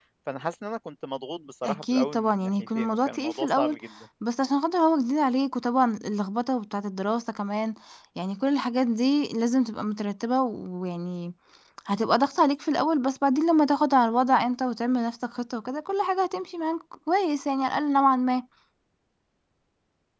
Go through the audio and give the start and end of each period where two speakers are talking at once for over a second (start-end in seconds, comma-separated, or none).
1.6-3.8